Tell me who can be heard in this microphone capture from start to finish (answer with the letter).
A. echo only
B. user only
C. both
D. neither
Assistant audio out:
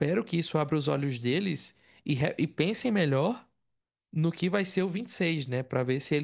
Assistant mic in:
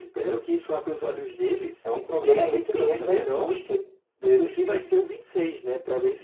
C